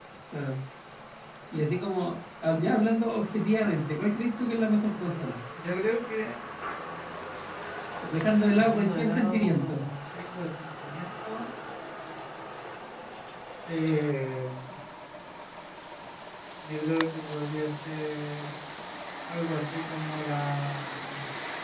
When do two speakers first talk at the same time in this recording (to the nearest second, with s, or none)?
9 s